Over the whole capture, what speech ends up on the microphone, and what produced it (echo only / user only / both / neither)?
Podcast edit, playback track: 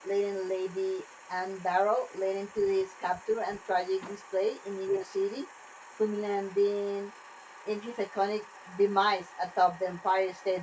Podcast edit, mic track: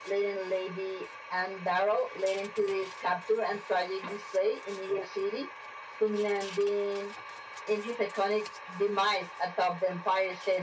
echo only